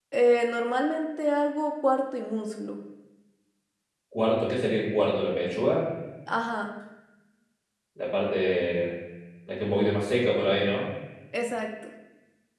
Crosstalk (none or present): none